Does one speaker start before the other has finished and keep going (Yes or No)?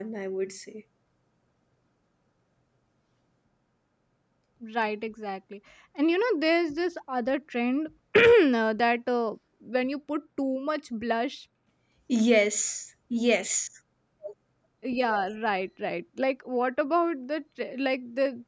No